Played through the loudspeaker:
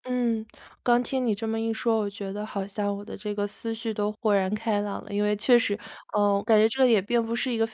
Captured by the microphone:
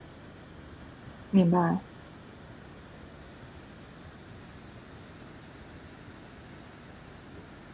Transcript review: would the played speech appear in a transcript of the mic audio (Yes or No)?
No